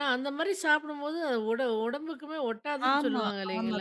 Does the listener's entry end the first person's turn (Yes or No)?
Yes